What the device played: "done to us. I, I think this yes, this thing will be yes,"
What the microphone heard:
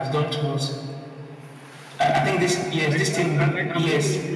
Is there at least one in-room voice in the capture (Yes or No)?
Yes